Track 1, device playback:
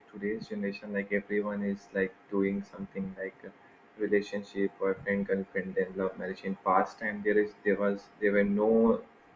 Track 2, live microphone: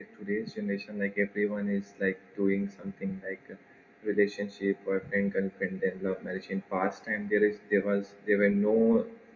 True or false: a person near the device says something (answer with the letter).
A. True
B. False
B